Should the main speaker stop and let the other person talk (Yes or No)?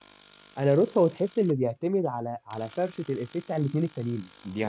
No